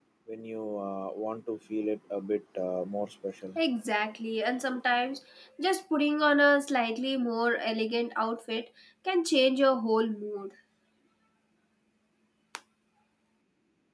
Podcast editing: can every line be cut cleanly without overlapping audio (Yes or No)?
Yes